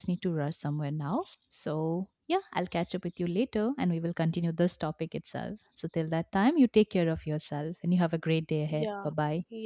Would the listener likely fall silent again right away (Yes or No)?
No